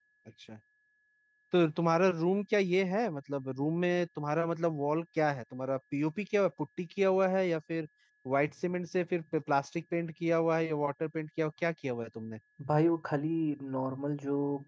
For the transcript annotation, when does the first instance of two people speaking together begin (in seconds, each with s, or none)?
none